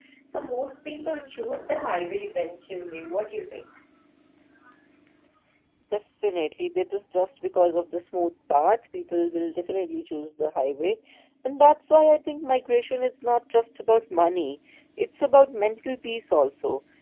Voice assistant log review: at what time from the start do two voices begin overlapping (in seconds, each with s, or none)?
none